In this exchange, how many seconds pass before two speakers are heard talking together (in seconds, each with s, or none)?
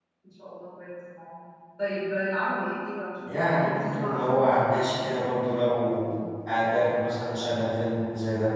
3.2 s